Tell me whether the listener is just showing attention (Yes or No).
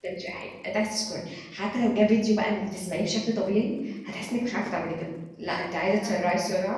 Yes